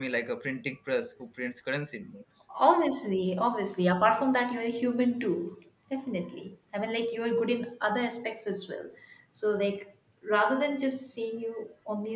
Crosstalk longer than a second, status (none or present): none